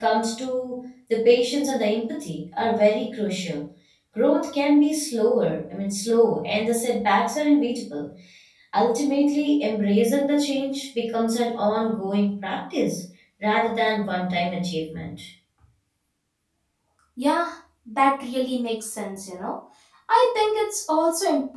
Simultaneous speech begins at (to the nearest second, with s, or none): none